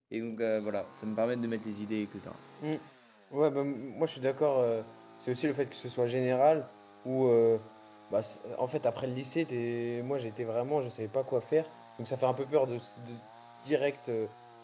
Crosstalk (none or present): none